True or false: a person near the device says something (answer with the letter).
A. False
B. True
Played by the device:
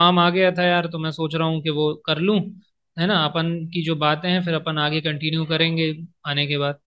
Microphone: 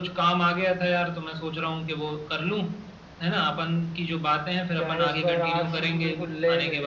B